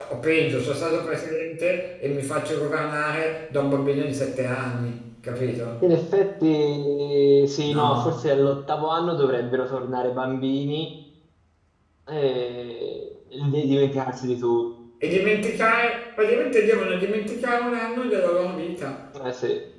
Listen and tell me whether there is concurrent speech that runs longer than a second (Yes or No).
No